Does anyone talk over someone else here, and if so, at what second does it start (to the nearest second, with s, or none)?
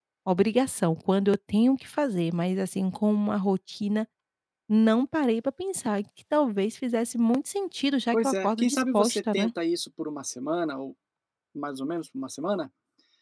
8 s